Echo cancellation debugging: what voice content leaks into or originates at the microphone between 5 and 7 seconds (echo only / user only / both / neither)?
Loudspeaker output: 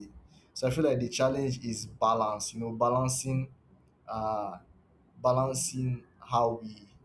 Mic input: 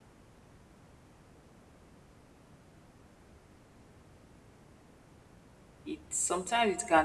user only